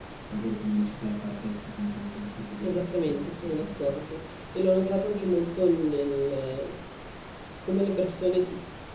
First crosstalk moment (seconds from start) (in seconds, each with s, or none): 2.6 s